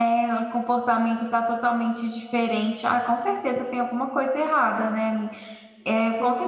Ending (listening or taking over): listening